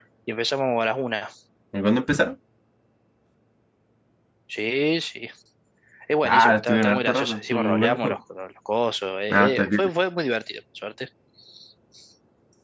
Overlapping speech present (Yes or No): Yes